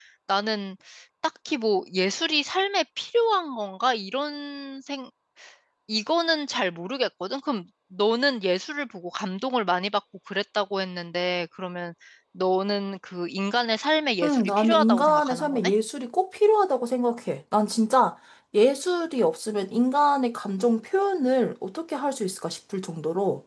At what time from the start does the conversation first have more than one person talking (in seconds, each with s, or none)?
14.2 s